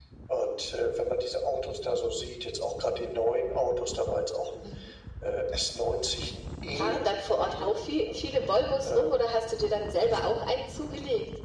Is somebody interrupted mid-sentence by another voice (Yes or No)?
Yes